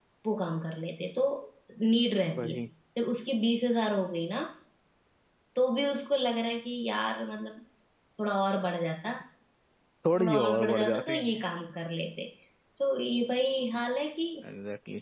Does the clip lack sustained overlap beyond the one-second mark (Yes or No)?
No